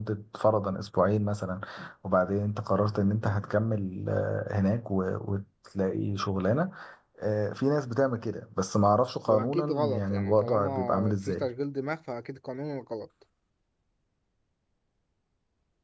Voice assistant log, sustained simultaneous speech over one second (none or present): present